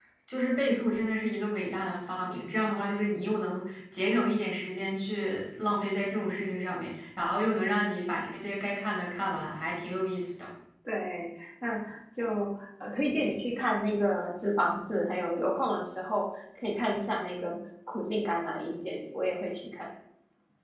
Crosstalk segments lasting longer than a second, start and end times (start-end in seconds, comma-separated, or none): none